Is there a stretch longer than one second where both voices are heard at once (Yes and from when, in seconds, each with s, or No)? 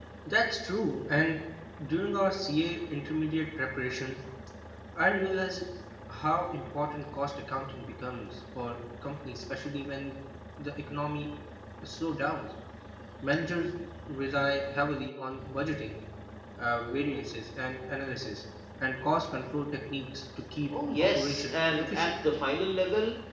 Yes, from 21.0 s